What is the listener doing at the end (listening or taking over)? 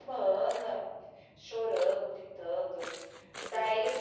listening